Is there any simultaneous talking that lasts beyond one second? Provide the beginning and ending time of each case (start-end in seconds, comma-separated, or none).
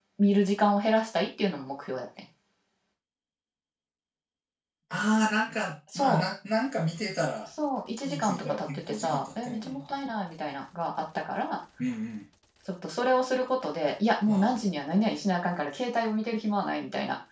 8.0-10.0